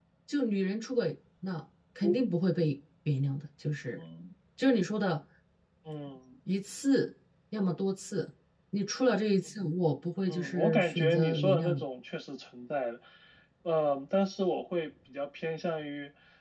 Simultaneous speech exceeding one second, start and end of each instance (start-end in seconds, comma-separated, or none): 10.3-11.8